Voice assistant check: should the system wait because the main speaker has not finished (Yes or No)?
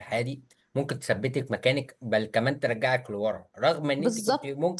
Yes